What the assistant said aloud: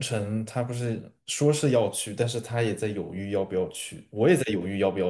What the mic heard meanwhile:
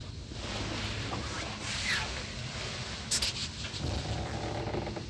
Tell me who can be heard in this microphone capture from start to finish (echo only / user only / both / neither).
neither